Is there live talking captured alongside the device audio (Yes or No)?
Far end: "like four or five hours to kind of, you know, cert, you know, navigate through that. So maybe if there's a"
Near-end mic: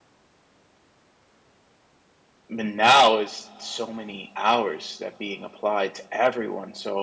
Yes